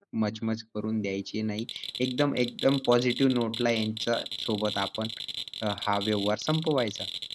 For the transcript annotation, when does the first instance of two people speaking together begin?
none

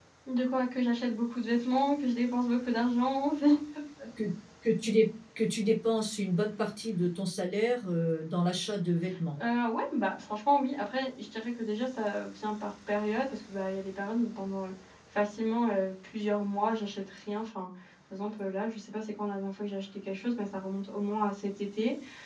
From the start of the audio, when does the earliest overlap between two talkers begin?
none

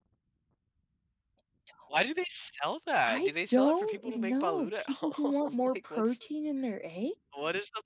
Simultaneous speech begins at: 3.0 s

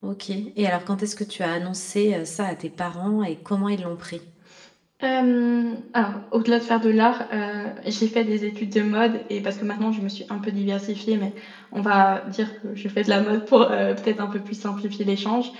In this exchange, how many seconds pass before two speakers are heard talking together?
none

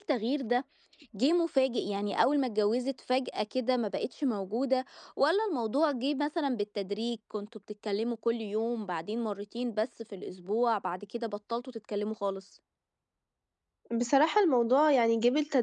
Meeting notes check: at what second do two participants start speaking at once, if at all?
none

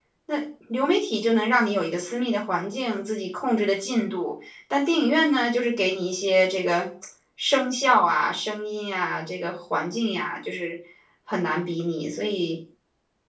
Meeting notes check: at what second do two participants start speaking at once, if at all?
none

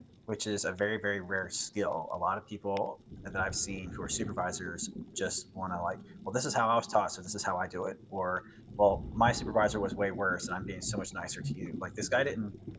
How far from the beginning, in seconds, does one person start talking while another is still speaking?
none

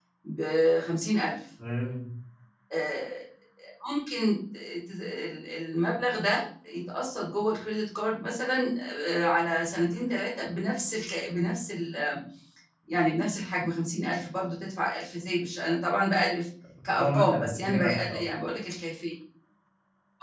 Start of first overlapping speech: 16.8 s

